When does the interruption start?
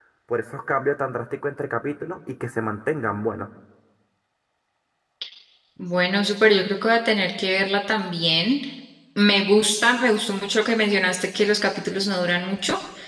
none

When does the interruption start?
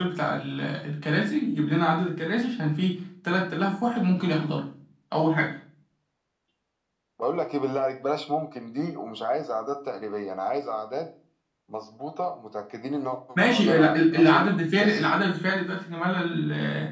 13.3 s

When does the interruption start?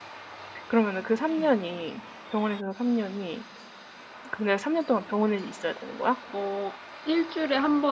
none

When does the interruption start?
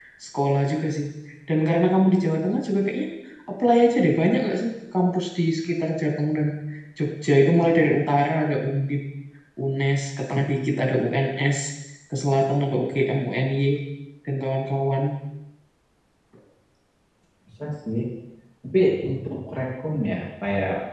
none

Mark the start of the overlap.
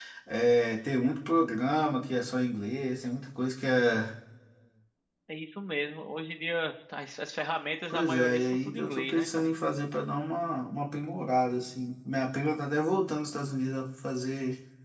7.9 s

